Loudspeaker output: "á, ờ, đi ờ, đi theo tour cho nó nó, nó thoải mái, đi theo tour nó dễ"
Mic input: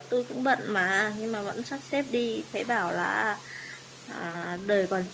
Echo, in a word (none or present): none